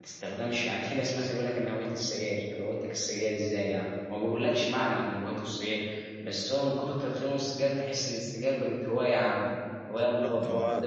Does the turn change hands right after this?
Yes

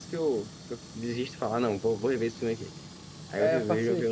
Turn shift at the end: Yes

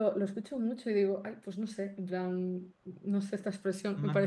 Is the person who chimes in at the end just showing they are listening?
No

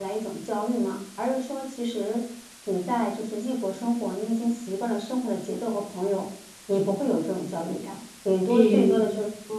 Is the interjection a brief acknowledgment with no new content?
Yes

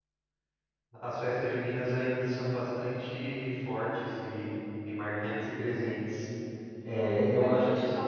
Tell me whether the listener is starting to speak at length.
Yes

